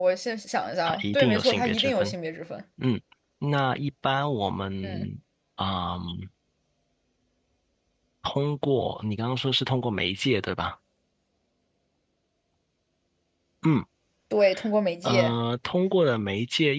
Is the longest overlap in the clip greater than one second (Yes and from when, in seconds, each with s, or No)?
Yes, from 0.8 s